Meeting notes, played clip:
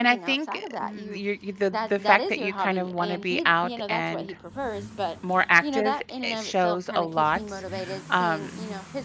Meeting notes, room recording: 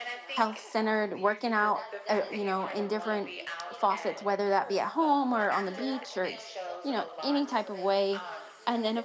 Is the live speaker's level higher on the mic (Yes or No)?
Yes